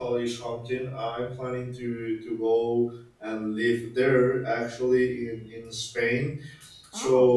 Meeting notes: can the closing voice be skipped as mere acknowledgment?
Yes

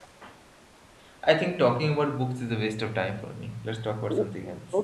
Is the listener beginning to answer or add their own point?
Yes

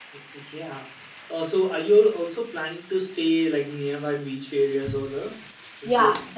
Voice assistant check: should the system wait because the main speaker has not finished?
No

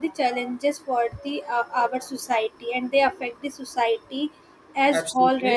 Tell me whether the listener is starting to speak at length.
Yes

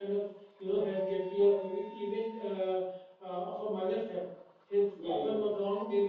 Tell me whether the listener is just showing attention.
Yes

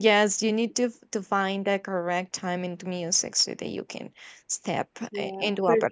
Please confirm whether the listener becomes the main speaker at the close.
Yes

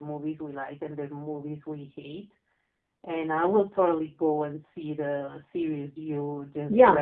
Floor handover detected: Yes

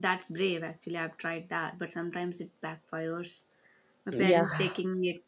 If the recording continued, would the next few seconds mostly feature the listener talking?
No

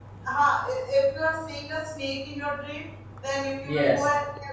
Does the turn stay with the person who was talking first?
Yes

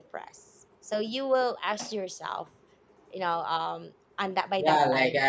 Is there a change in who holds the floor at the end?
Yes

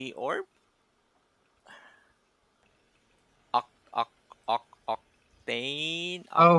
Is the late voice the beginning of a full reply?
Yes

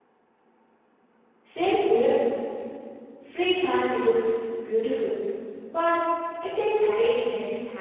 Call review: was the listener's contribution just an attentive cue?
No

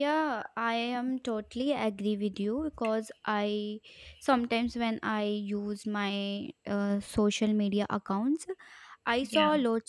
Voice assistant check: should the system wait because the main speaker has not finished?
Yes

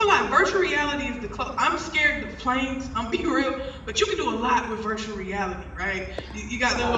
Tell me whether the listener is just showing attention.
Yes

